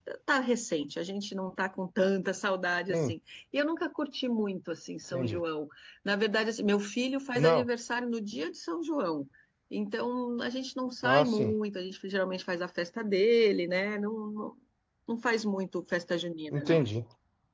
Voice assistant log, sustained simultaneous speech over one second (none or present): none